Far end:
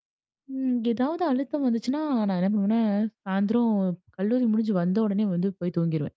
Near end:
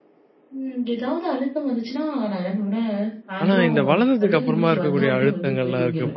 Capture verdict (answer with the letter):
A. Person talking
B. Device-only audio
A